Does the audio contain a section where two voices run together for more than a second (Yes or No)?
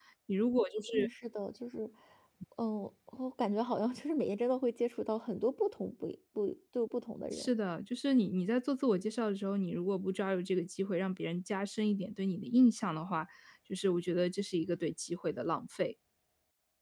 No